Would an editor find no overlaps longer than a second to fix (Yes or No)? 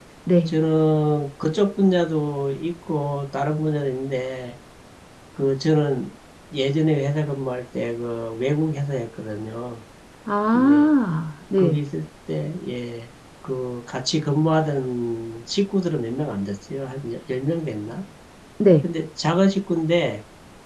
Yes